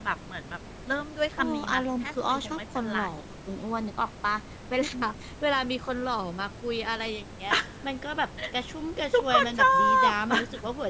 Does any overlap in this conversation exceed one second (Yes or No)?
Yes